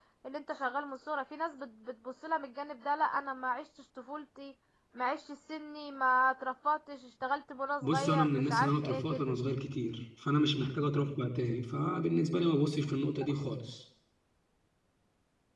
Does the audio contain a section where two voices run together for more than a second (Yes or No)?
Yes